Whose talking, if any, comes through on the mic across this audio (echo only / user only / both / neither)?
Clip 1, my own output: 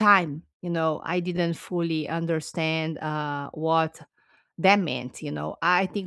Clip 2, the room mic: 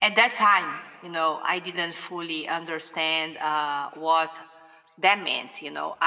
echo only